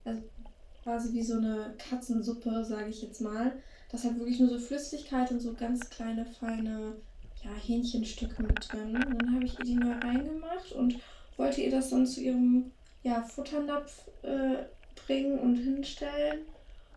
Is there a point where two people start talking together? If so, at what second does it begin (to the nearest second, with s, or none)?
none